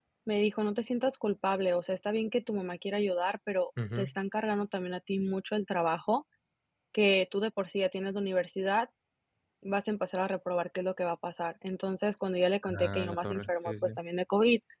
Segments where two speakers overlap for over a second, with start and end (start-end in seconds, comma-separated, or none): 12.6-14.0